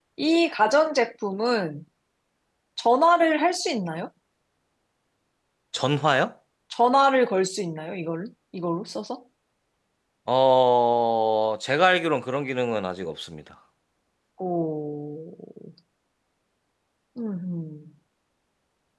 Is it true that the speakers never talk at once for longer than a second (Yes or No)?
Yes